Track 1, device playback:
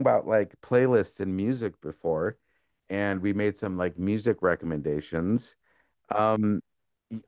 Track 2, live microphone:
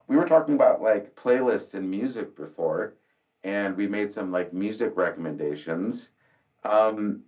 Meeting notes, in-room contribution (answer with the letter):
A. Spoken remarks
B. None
B